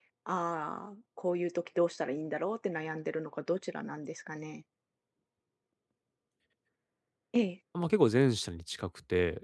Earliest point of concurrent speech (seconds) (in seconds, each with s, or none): none